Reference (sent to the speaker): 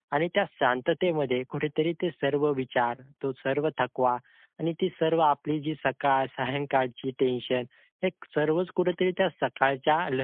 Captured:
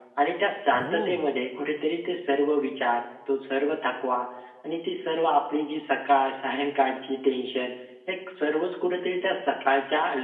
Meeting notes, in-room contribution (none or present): present